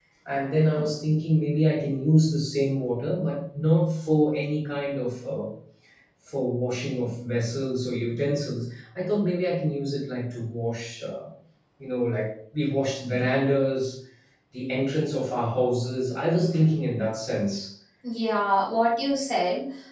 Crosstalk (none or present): none